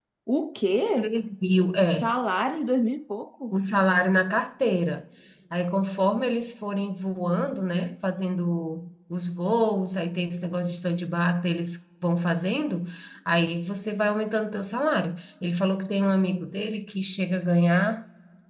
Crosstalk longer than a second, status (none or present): none